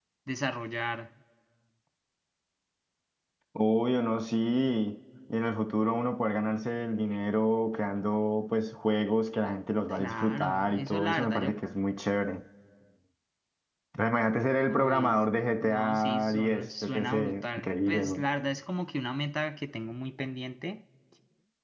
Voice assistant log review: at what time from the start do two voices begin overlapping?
10 s

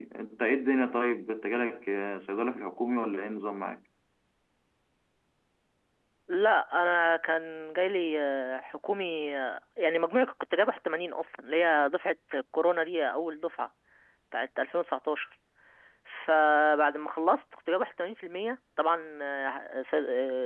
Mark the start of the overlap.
none

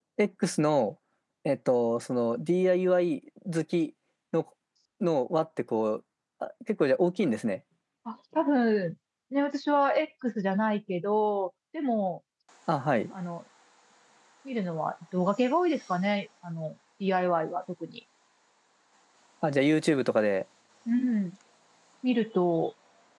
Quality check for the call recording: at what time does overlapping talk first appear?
none

